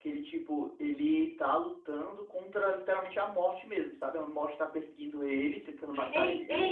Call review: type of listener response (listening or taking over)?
taking over